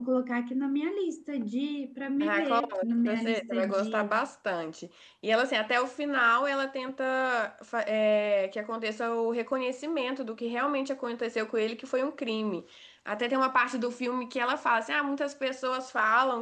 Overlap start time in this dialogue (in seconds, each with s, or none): 2.2 s